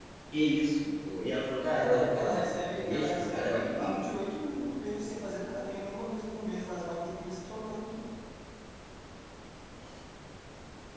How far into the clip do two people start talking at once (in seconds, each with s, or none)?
1.6 s